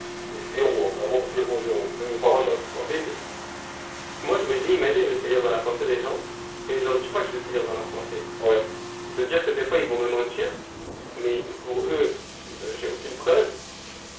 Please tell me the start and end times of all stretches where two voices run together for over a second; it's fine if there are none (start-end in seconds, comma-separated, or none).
none